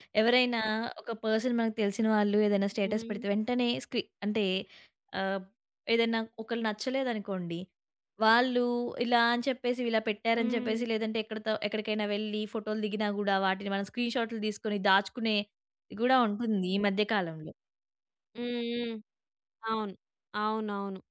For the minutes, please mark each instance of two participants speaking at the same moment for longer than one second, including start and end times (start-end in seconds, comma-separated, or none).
none